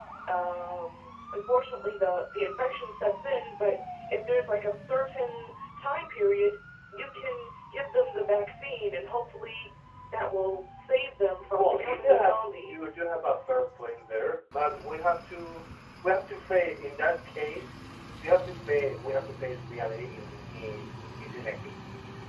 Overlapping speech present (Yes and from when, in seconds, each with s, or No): Yes, from 11.5 s